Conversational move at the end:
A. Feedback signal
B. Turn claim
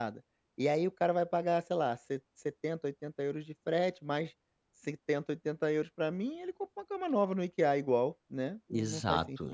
B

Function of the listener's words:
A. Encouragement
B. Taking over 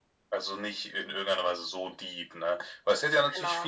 A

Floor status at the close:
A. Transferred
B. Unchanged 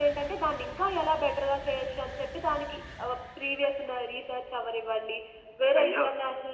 B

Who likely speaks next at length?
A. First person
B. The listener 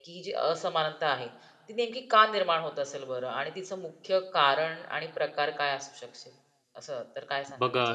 B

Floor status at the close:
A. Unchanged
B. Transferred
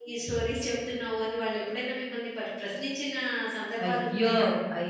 B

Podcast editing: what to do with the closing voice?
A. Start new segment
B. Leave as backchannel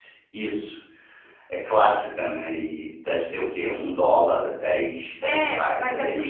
A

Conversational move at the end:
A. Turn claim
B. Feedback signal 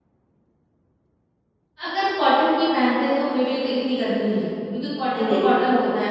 B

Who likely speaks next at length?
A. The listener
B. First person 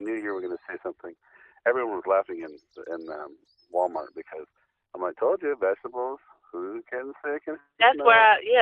A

